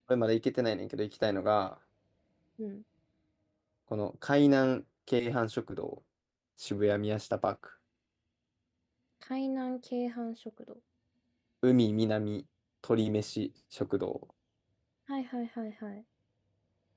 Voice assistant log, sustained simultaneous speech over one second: none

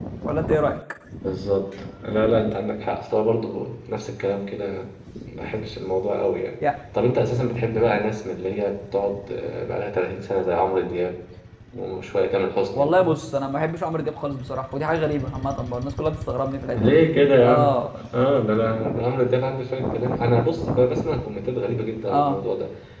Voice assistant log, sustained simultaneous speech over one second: none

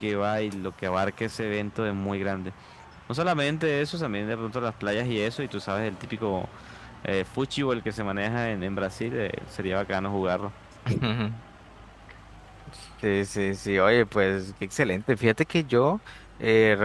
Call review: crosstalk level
none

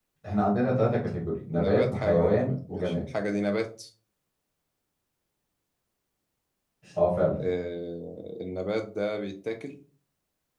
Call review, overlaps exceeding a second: present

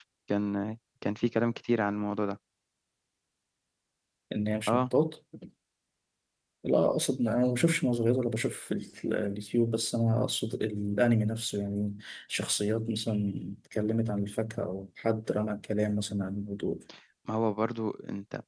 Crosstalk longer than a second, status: none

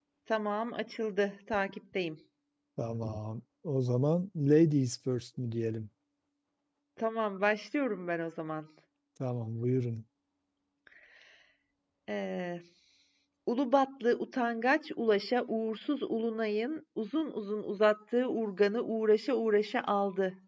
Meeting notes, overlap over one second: none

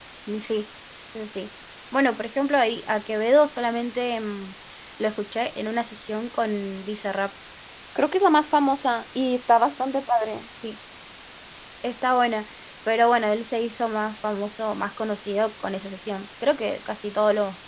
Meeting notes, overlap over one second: none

